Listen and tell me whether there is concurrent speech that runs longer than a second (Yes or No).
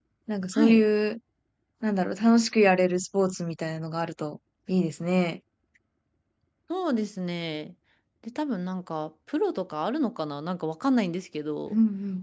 No